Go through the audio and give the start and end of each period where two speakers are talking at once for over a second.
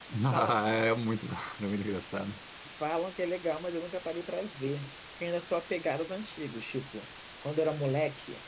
none

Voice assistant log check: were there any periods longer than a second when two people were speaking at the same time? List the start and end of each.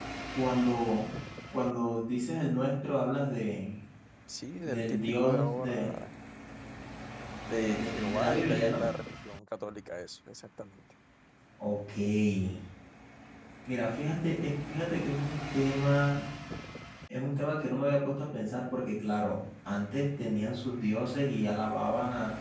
4.6-5.9, 7.5-8.8

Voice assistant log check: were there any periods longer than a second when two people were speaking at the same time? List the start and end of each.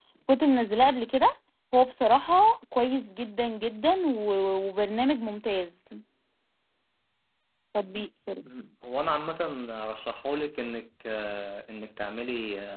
none

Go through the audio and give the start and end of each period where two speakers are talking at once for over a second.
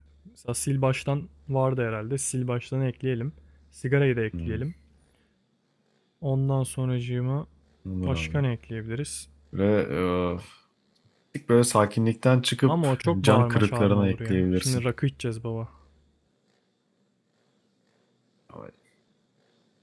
12.7-14.8

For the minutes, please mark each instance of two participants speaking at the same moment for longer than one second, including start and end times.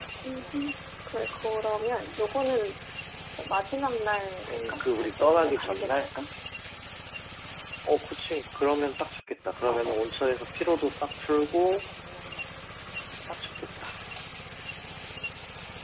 4.5-6.1

